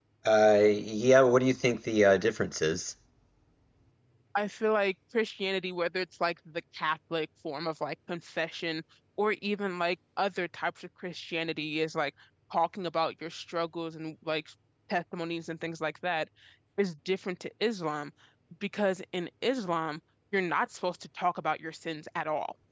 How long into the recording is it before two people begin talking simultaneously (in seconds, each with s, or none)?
none